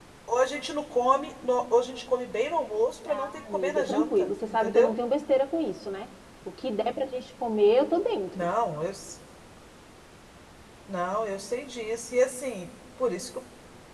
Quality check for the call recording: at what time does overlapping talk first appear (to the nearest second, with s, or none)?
3 s